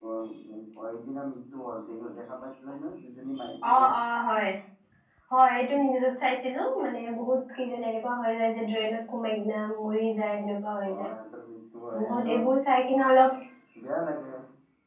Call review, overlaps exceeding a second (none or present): none